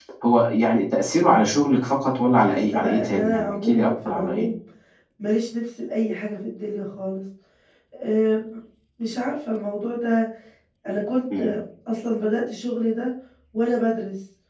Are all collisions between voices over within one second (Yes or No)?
No